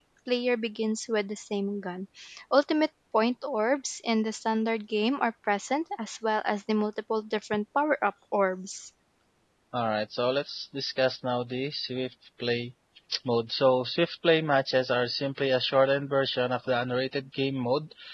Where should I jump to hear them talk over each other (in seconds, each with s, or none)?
none